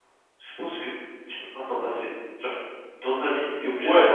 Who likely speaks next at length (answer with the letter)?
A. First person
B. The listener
B